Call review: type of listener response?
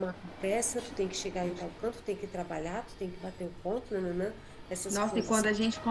taking over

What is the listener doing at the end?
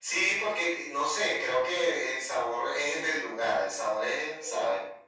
taking over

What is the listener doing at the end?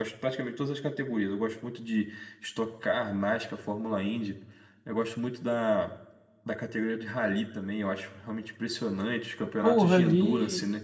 taking over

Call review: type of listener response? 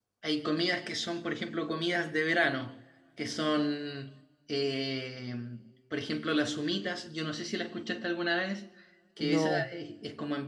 listening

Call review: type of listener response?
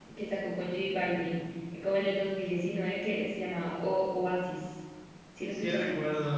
taking over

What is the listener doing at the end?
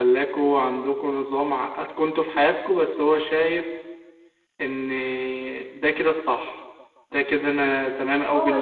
taking over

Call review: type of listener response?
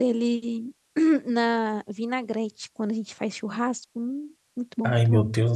taking over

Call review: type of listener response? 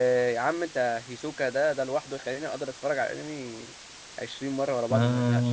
taking over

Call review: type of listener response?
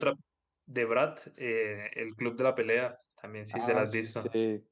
taking over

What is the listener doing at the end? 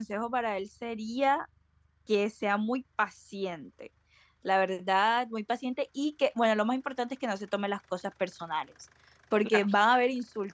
listening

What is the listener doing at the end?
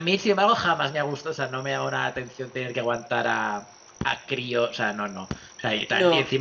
listening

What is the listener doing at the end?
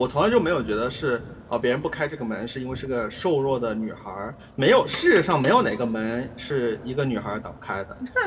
taking over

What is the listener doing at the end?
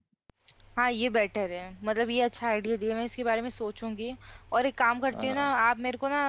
listening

